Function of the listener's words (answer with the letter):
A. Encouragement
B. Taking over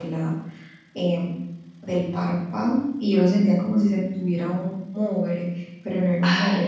A